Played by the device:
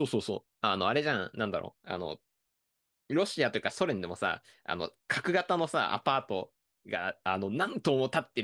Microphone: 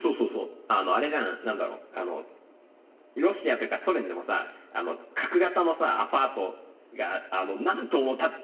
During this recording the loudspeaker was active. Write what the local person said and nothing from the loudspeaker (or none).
none